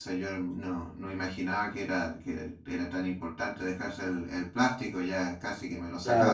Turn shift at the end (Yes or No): Yes